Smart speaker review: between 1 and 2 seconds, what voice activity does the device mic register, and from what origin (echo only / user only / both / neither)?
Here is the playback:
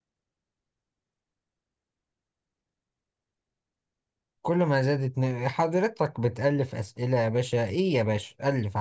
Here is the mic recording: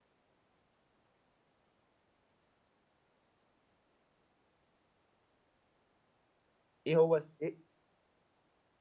neither